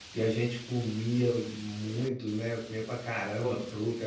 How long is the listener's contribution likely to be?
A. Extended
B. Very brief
B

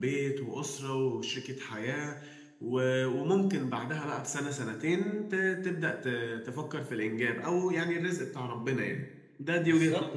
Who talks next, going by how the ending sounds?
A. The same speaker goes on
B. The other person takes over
B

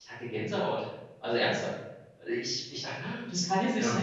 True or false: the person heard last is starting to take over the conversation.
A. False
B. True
A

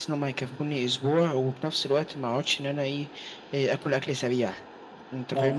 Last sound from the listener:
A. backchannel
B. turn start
B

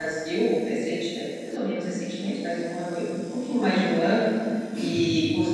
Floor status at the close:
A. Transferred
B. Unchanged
B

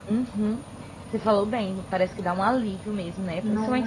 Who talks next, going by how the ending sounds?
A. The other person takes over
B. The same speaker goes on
B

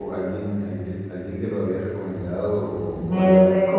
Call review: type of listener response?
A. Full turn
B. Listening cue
A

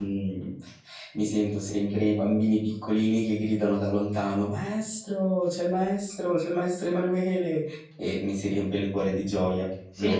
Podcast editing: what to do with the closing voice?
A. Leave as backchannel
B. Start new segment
B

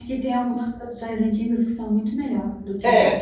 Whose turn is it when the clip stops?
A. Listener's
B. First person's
A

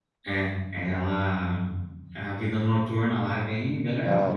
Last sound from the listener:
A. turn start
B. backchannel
A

